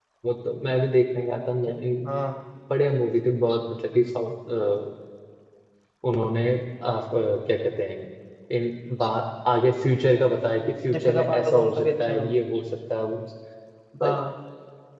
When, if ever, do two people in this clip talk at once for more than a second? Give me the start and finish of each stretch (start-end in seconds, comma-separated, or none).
10.9-12.3